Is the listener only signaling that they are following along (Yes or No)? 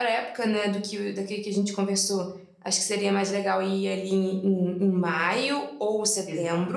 No